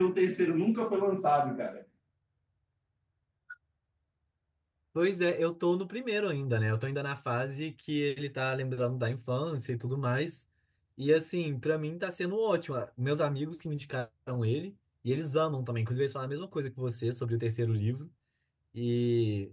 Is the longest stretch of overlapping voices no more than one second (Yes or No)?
Yes